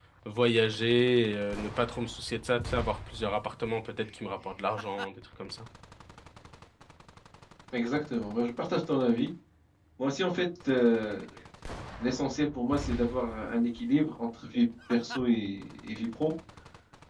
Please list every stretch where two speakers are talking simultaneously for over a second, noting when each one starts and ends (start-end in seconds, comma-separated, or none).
none